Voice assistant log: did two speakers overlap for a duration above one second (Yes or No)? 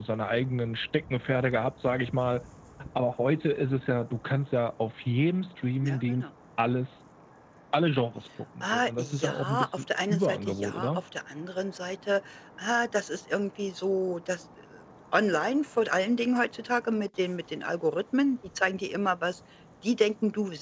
Yes